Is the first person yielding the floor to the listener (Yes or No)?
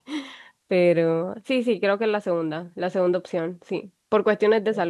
No